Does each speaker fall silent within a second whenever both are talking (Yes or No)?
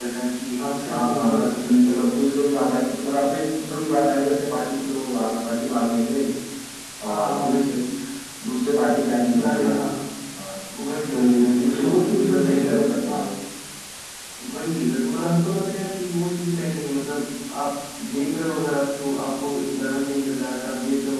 No